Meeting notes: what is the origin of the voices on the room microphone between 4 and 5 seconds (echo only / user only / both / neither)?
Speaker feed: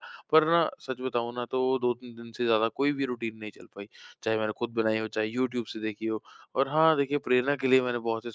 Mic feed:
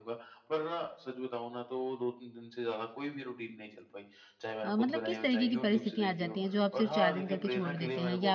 both